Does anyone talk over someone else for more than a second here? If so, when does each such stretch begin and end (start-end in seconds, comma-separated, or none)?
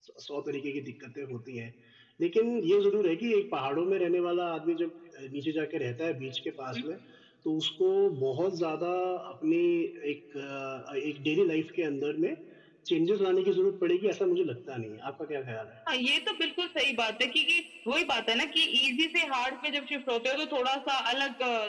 none